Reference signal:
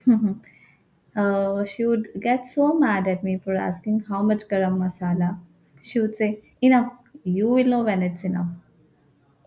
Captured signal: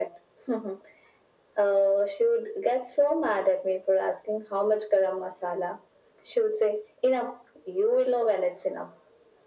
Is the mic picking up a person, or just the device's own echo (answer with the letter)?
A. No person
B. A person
A